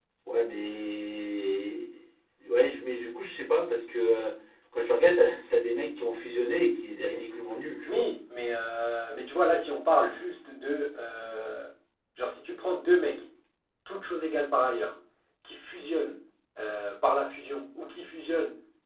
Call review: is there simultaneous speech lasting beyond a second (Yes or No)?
No